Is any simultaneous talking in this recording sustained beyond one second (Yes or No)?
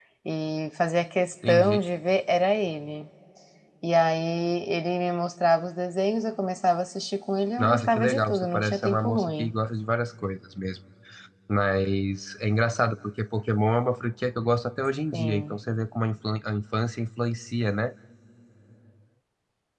Yes